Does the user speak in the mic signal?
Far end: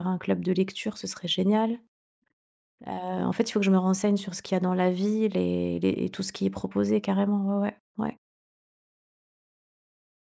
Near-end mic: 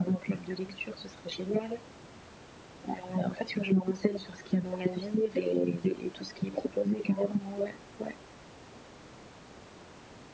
No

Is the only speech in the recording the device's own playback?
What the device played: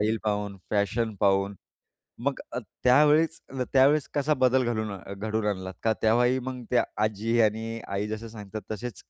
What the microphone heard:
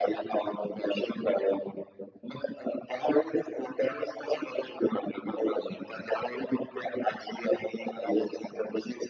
Yes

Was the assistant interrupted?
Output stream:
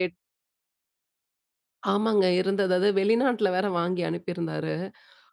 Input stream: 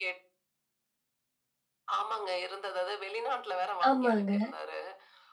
Yes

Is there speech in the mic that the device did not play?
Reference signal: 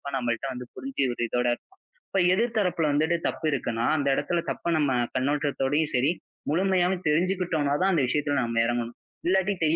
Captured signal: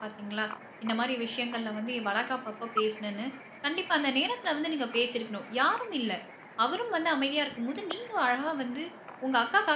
Yes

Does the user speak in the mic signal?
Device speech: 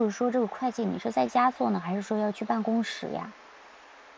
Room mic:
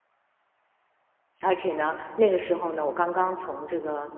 Yes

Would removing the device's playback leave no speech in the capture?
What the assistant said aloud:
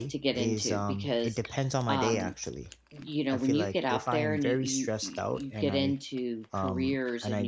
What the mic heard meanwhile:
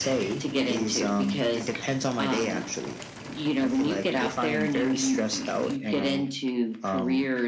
Yes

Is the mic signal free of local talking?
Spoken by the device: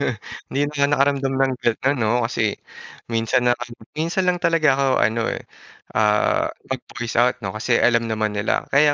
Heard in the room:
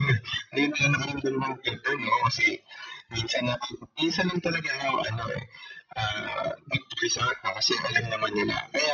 Yes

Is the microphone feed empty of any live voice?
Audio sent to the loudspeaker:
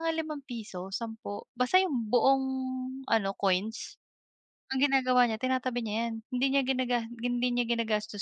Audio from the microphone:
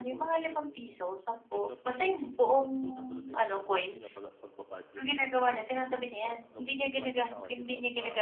No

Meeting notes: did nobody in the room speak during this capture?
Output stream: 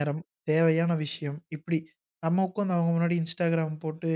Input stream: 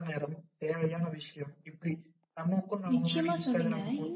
No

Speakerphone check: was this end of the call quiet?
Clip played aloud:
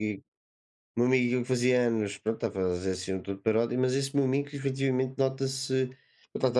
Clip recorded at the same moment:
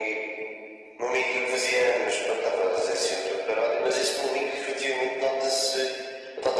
Yes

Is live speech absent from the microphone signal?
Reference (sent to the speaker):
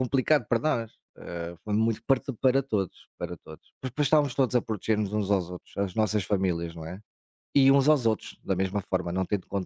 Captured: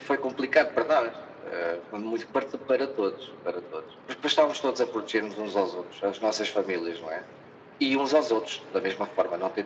Yes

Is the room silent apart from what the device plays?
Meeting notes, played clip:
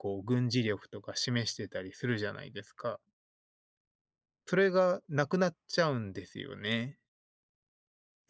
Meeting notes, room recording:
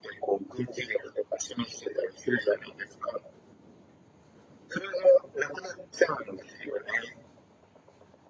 Yes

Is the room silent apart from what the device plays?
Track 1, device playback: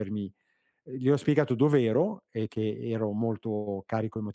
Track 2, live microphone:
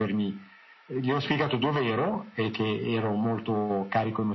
Yes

